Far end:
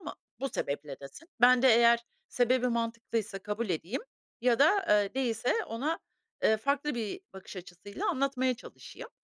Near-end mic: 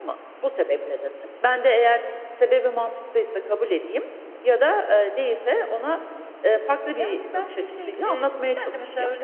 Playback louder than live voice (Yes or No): Yes